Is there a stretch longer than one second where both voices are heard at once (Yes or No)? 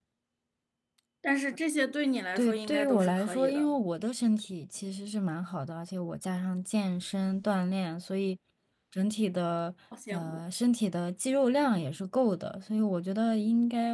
Yes